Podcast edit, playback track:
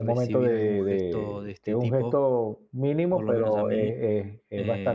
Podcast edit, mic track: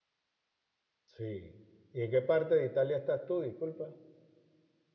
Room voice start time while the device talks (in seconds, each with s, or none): 1.0 s